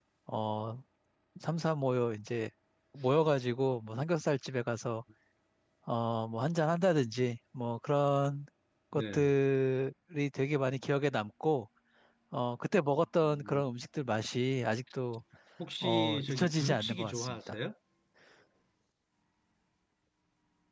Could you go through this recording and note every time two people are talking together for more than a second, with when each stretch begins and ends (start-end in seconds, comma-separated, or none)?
15.8-17.6